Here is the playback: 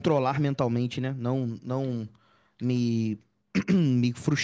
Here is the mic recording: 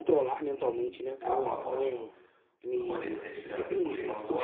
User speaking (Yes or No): Yes